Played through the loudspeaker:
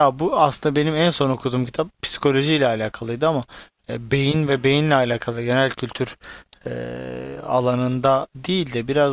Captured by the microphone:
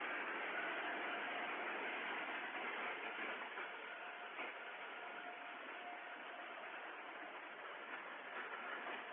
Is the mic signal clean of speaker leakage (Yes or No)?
Yes